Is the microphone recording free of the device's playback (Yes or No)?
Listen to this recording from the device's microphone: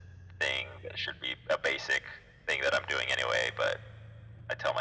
No